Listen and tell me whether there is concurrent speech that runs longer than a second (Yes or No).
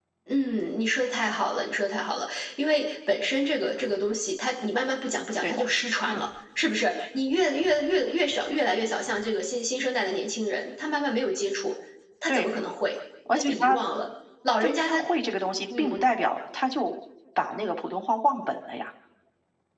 No